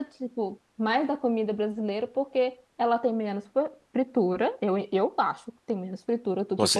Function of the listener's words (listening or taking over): listening